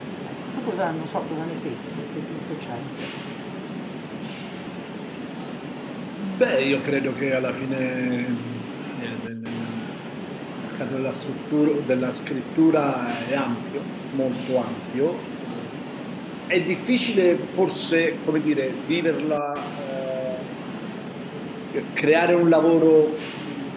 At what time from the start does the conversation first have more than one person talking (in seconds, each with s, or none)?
none